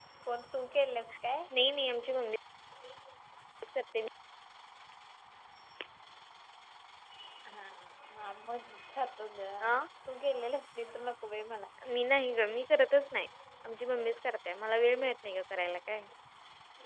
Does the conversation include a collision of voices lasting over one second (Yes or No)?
No